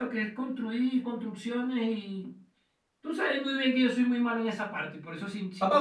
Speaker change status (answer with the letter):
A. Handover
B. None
A